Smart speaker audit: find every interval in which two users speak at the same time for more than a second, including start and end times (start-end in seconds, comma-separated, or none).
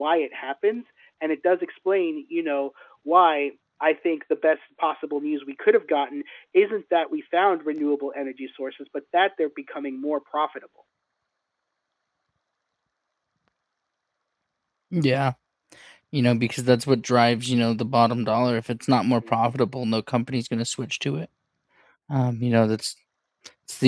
none